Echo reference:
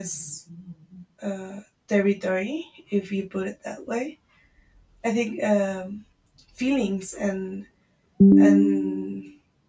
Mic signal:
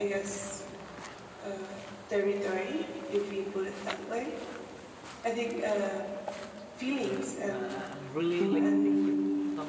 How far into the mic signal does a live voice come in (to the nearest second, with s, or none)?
7 s